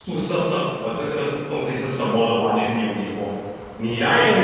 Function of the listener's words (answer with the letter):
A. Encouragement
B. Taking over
B